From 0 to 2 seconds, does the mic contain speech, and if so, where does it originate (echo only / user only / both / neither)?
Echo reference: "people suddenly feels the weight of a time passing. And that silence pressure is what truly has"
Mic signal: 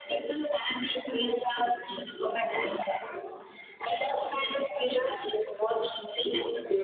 echo only